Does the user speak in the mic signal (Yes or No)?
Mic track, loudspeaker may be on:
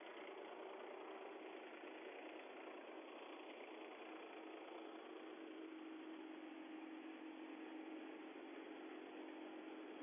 No